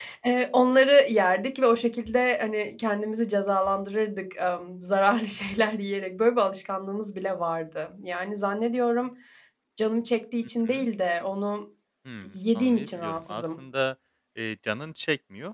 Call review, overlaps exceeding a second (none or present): present